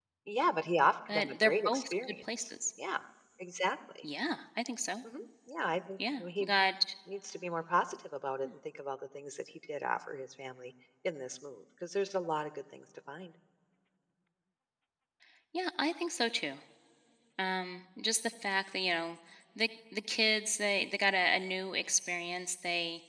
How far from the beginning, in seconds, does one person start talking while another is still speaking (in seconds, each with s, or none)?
1.1 s